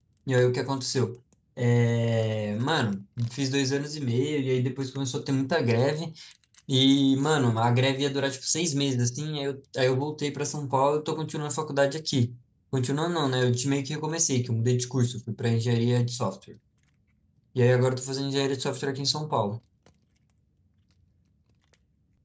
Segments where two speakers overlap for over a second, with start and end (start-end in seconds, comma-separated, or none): none